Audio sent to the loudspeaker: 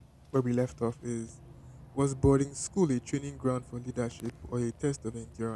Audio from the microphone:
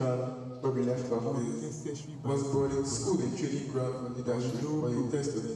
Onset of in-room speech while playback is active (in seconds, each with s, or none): 0.9 s